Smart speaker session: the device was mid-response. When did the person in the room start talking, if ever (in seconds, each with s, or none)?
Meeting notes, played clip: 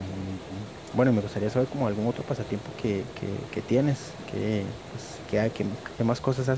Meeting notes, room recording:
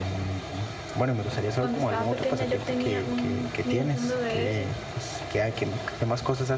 1.6 s